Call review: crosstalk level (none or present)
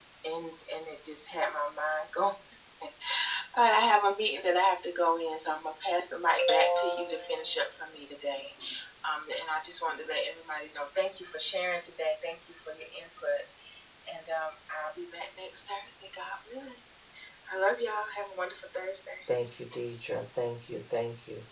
none